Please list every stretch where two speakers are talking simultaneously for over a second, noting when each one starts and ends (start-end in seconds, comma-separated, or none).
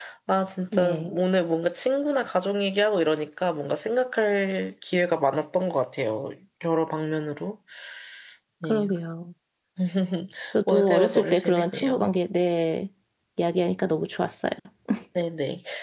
10.7-12.0